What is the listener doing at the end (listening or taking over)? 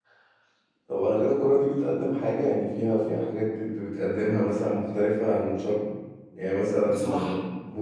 listening